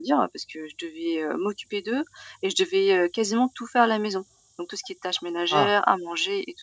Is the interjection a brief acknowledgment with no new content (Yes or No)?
Yes